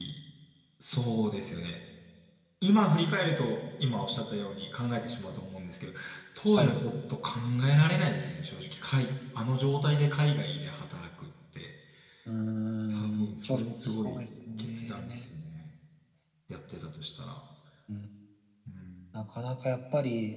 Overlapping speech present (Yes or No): Yes